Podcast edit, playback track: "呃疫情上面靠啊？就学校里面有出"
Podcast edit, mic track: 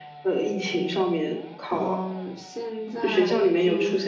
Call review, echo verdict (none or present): present